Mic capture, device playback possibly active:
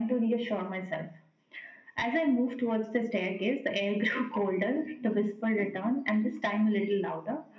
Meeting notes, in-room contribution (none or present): none